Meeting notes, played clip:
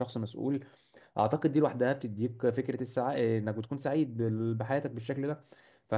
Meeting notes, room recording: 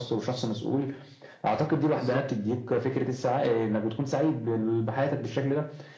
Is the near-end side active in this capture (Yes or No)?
Yes